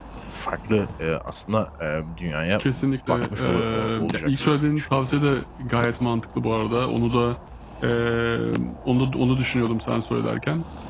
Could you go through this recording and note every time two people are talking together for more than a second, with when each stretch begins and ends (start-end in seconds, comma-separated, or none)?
3.1-4.8